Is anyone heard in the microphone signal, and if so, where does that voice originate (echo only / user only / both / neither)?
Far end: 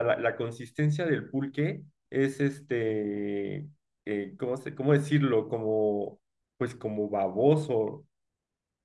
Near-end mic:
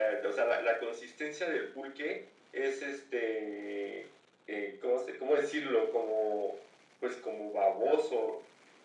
echo only